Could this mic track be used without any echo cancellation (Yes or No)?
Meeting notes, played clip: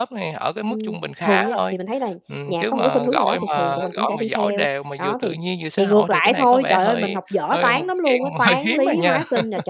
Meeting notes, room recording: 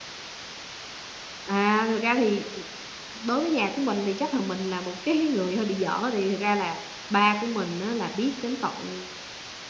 Yes